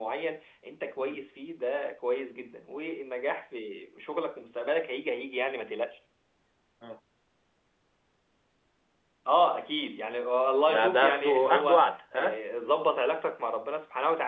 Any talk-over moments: Yes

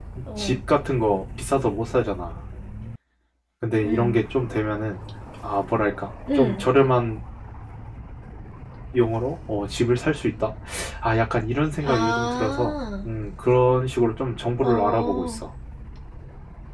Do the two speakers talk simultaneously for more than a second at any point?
Yes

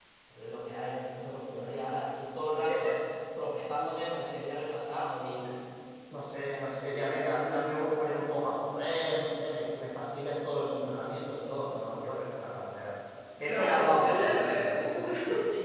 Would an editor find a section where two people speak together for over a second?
Yes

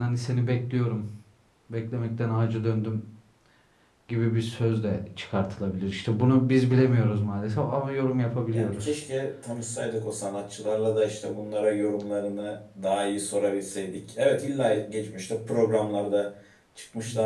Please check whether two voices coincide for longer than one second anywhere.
No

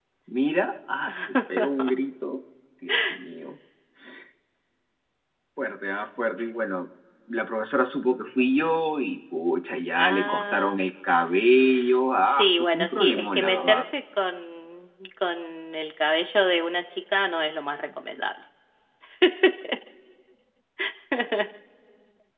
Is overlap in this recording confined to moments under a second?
No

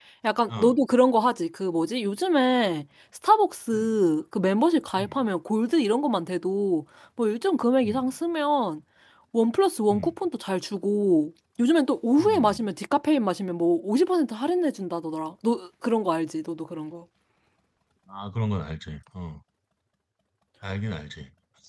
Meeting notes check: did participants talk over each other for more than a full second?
No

